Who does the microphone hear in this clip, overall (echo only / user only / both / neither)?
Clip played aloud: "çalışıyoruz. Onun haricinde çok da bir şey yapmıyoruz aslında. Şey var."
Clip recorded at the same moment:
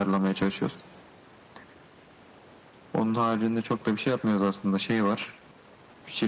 echo only